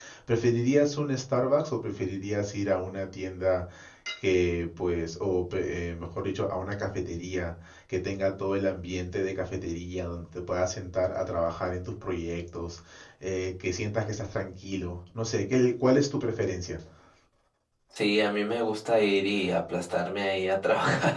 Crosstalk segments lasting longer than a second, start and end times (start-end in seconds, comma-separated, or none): none